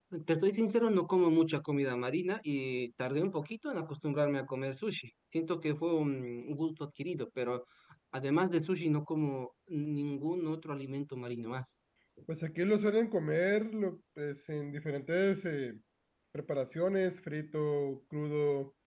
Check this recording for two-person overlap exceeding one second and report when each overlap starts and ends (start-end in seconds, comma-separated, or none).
none